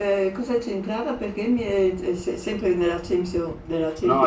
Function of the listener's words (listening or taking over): taking over